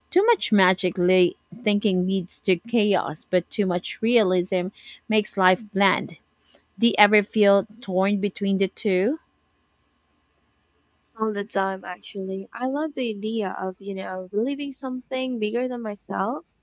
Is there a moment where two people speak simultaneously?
No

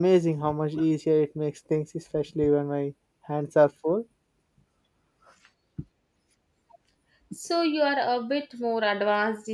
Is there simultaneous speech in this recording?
No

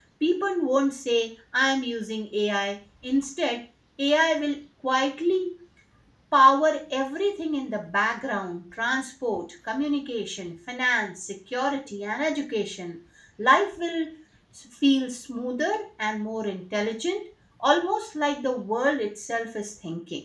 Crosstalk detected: No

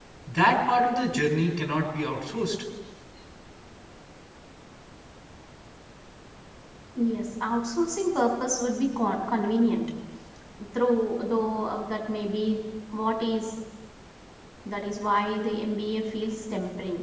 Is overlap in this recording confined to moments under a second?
Yes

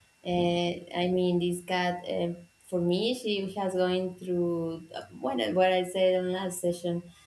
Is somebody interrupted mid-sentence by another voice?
No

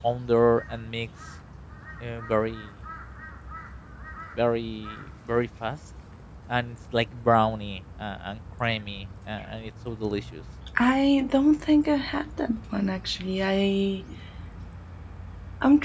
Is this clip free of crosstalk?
Yes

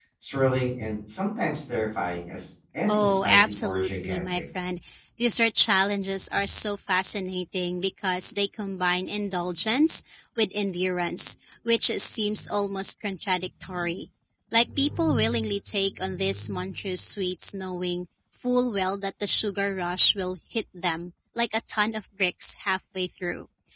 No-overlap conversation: No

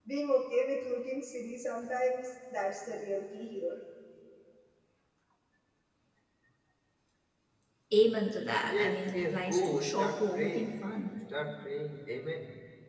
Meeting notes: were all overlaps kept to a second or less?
No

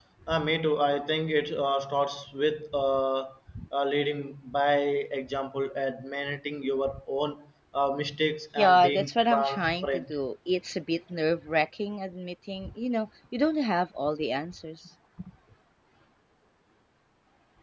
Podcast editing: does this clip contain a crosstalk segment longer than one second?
Yes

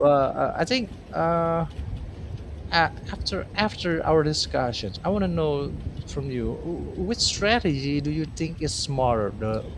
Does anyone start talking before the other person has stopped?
No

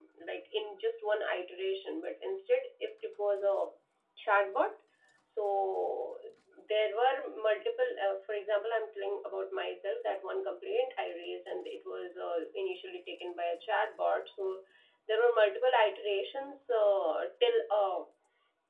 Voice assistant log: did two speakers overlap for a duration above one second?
No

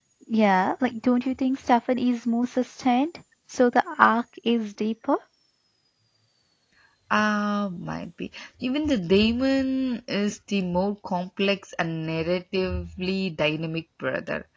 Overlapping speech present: No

